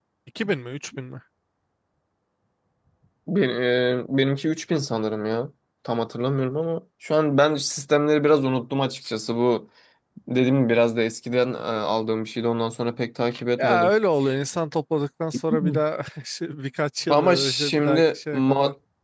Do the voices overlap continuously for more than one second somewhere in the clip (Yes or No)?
Yes